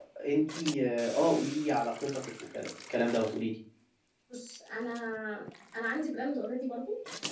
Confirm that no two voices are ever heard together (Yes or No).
Yes